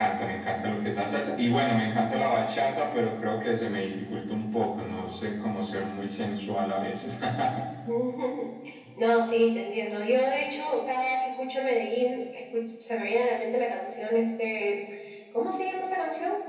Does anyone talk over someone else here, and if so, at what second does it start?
none

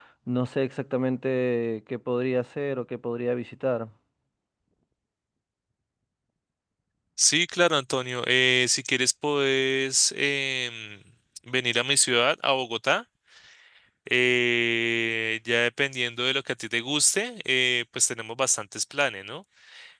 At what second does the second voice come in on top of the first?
none

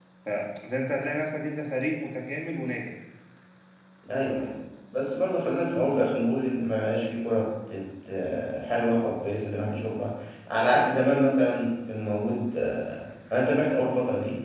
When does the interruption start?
none

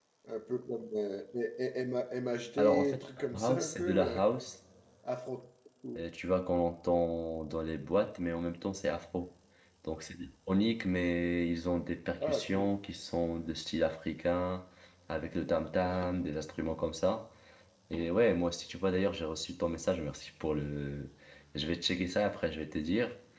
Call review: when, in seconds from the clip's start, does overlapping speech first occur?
3 s

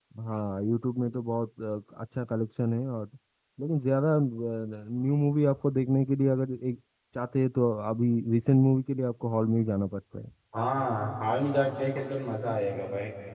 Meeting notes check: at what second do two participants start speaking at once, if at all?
none

